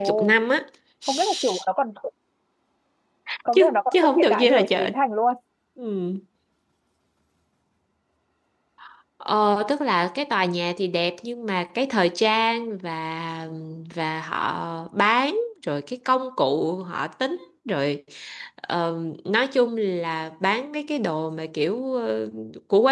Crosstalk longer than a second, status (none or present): present